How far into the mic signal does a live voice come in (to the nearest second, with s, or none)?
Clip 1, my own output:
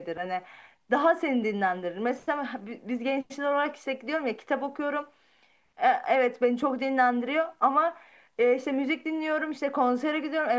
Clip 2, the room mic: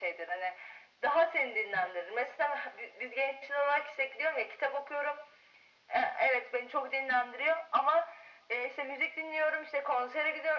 none